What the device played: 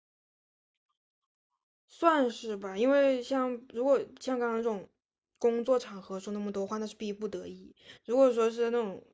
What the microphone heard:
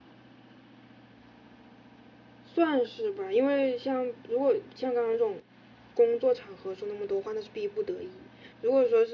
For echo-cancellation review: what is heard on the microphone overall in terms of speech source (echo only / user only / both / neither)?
echo only